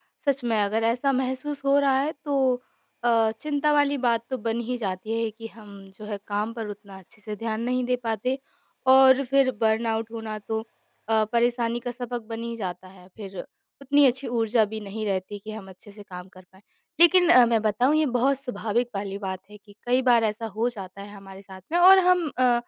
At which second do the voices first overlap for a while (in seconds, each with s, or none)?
none